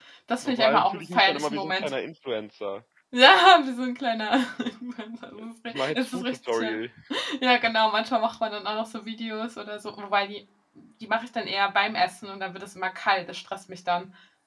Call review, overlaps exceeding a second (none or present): present